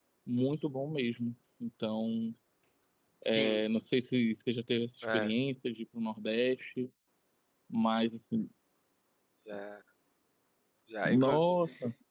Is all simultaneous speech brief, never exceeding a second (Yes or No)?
Yes